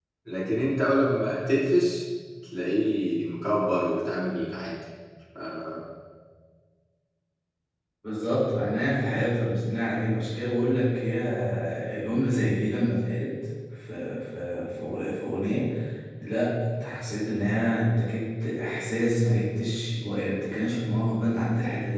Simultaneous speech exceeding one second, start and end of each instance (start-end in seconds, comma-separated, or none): none